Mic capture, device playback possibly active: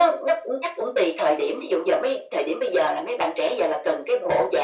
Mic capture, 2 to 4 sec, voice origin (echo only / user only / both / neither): echo only